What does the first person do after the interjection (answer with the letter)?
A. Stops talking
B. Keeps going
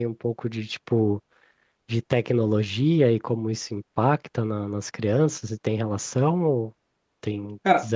A